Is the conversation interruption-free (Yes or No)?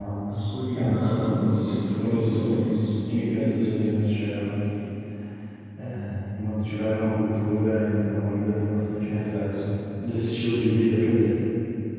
No